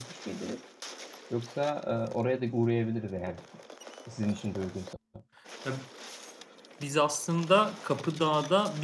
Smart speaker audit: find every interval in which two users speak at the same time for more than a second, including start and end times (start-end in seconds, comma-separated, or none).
none